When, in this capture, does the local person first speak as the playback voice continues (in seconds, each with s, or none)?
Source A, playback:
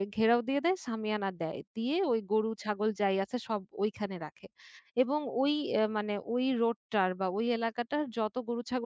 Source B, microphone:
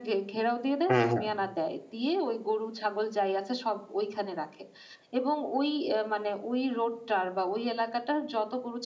0.9 s